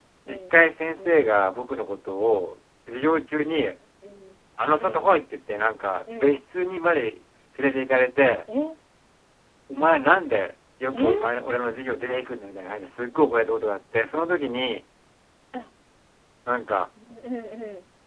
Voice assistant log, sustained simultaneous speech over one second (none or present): none